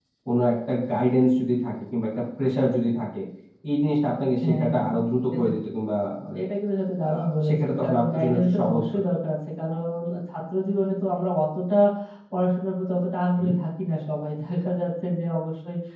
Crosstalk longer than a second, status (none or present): present